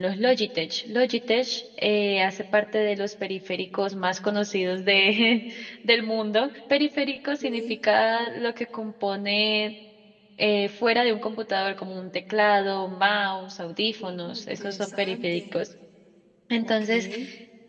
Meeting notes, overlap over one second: present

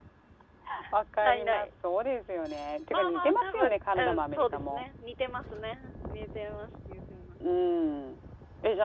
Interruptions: present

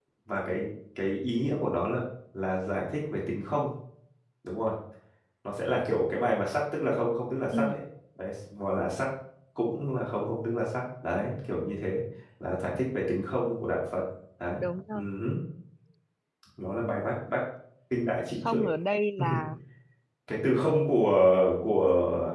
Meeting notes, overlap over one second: none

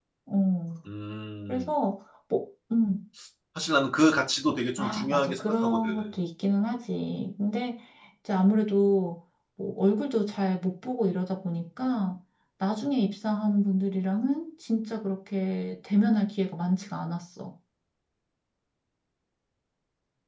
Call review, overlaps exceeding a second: present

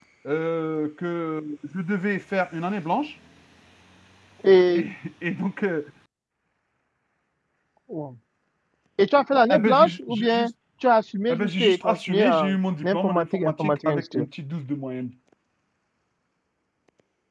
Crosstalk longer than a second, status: present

